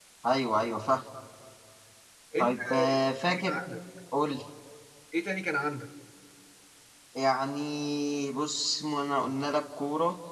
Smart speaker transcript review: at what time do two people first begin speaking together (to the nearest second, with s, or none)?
2 s